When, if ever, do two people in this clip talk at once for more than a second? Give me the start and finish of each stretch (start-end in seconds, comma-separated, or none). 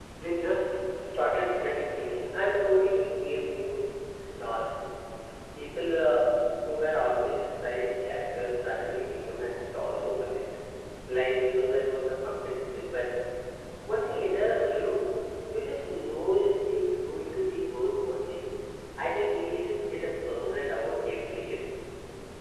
none